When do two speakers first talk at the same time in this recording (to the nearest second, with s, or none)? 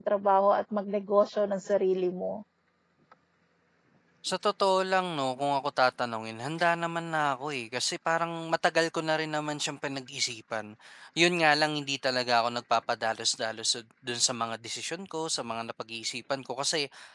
none